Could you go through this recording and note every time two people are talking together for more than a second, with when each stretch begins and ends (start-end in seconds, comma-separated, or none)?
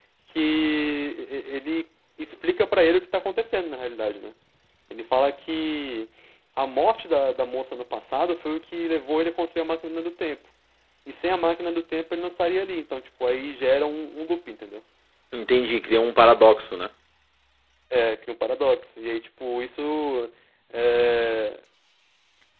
none